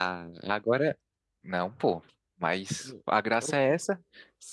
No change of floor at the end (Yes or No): Yes